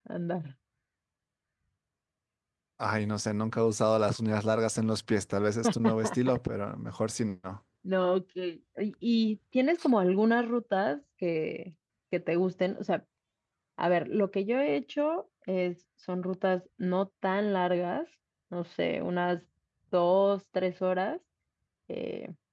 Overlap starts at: none

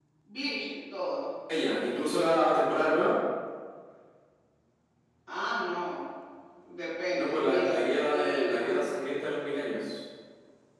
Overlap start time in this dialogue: 7.1 s

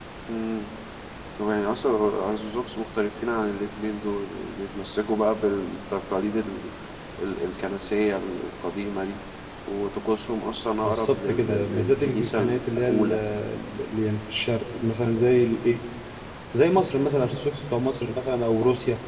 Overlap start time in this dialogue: 10.8 s

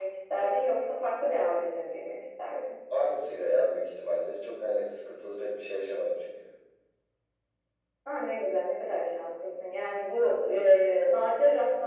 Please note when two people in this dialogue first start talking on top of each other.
none

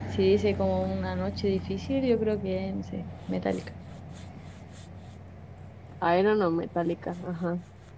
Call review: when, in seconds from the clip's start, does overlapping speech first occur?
none

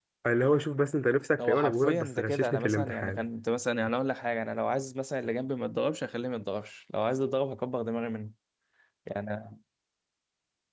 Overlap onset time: 1.4 s

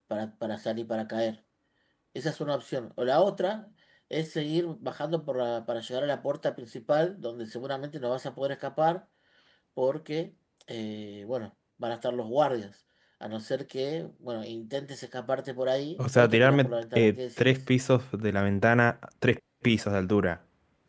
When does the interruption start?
15.9 s

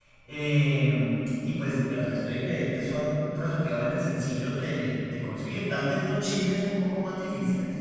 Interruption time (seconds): none

